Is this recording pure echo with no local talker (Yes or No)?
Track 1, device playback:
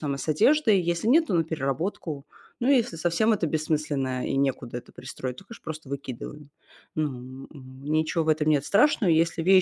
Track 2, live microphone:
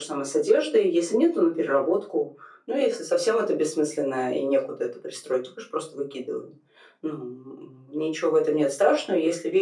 Yes